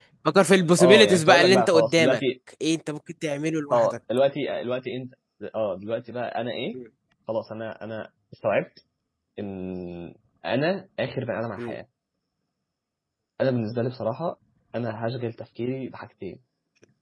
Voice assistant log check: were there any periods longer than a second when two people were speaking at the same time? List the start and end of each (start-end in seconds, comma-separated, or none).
0.8-2.2